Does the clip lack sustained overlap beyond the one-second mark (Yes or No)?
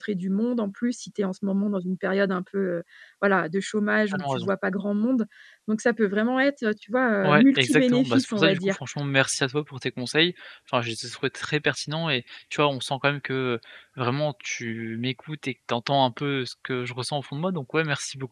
No